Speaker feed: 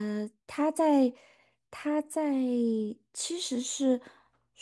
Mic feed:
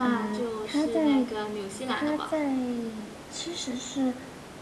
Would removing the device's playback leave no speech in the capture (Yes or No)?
No